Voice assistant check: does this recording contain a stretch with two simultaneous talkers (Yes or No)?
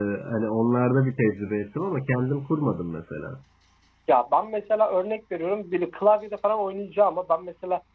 No